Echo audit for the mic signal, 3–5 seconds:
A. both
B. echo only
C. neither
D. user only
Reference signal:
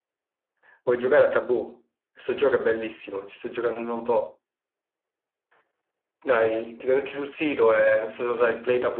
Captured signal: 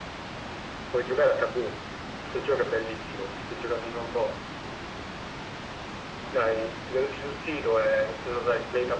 B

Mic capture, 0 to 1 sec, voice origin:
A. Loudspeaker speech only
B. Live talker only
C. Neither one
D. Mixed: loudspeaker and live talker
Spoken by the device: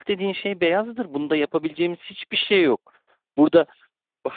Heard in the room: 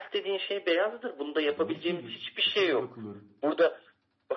A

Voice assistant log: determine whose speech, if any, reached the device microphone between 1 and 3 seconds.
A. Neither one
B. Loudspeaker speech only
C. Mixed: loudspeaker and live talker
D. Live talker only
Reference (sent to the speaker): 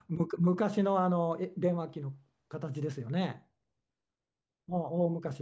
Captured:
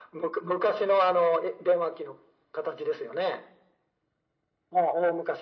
B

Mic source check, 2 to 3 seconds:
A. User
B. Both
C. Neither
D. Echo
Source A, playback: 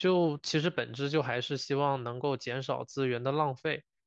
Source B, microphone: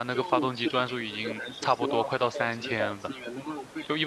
B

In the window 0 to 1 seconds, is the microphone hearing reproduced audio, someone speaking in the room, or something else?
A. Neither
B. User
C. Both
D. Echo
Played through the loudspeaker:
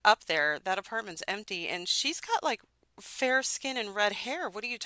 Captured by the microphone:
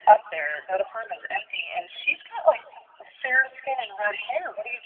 D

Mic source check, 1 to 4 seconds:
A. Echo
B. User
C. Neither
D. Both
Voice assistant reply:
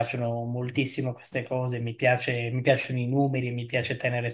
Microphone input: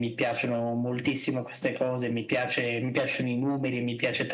A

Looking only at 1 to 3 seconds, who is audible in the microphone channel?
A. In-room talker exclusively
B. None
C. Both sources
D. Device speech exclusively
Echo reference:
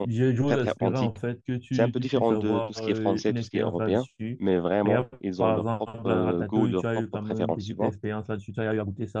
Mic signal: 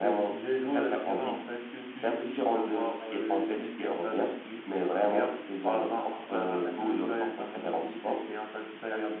D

